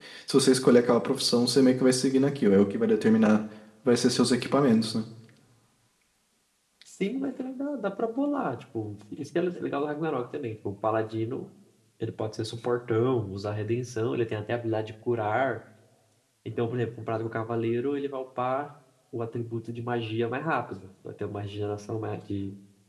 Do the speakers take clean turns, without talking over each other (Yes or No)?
Yes